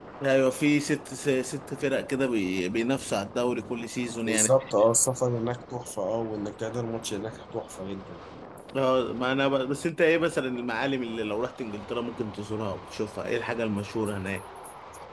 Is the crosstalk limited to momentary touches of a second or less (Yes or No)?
Yes